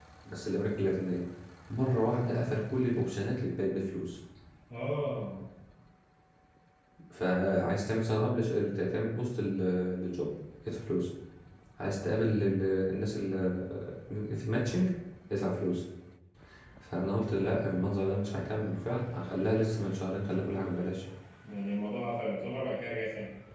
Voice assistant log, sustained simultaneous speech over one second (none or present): none